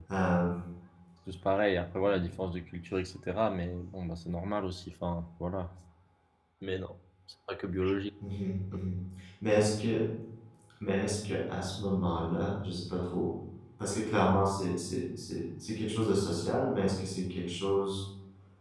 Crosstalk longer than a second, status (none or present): none